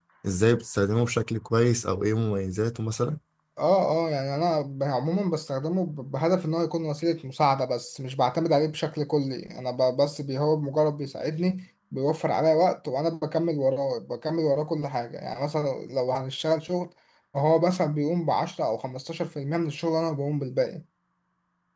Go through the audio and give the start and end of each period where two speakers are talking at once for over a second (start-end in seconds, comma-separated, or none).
none